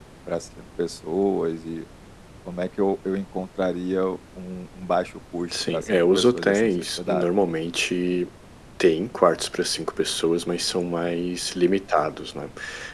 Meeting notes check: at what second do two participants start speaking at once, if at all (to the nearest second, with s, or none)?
6 s